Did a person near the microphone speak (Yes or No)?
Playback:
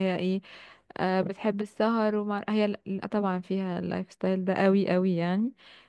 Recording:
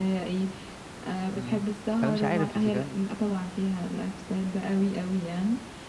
Yes